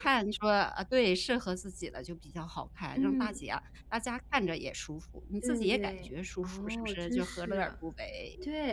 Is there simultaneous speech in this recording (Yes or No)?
Yes